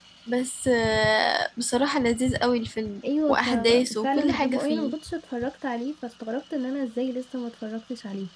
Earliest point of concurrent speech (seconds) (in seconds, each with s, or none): 3.0 s